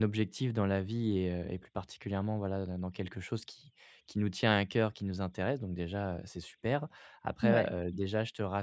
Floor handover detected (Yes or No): No